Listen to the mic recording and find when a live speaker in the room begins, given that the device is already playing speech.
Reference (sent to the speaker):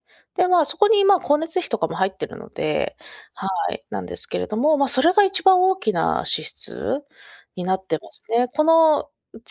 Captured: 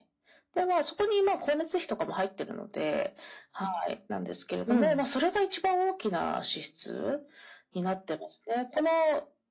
4.7 s

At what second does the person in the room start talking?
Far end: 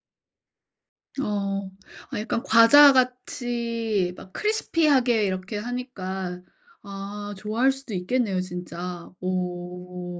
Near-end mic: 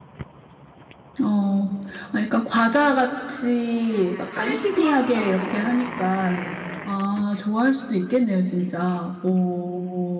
4.3 s

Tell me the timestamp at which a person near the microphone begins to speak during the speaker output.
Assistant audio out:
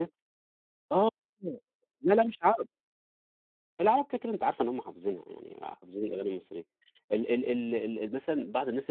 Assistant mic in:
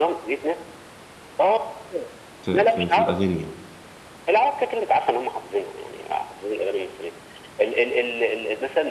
2.4 s

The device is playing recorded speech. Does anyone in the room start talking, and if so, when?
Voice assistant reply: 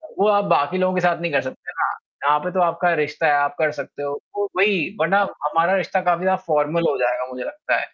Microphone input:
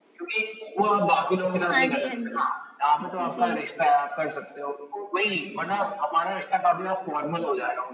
1.7 s

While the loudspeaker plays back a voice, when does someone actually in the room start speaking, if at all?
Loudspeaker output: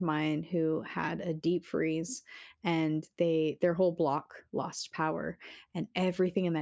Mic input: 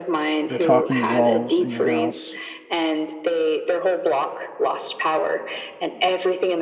0.5 s

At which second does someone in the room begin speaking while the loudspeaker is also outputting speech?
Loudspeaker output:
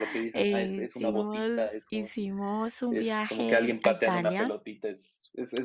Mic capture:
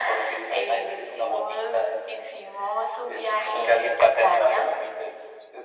none

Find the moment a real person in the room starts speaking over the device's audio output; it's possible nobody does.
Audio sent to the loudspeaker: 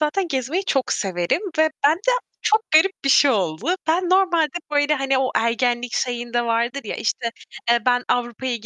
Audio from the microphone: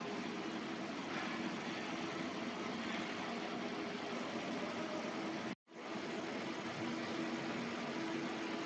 none

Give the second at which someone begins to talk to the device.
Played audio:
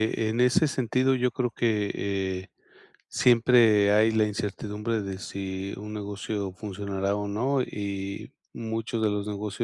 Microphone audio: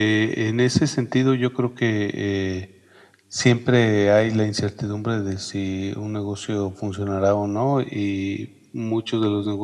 none

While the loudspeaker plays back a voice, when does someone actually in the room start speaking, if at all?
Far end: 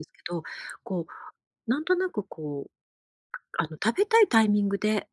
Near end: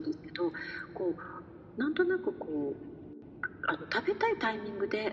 none

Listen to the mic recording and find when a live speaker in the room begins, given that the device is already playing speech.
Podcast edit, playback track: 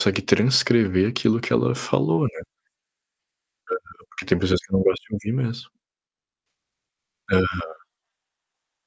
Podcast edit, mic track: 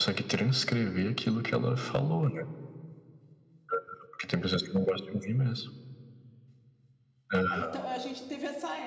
7.5 s

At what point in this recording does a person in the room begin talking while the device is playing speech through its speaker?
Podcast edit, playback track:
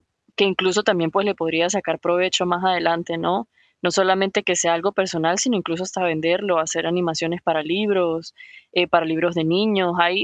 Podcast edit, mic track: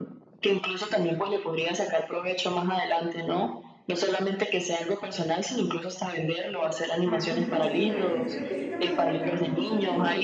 7.0 s

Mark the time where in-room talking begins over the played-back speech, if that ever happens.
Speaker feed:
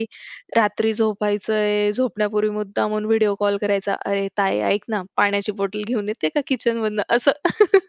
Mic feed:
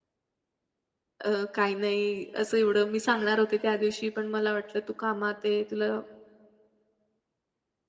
1.2 s

